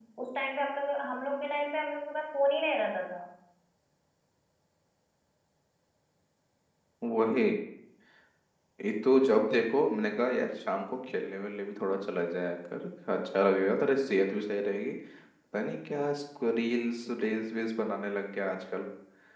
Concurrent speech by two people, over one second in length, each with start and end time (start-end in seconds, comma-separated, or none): none